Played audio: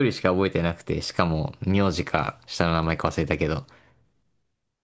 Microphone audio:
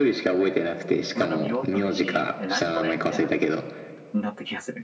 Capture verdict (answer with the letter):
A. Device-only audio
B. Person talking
B